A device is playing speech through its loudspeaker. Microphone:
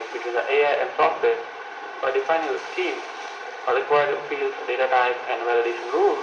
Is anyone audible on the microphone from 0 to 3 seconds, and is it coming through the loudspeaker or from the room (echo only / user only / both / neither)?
echo only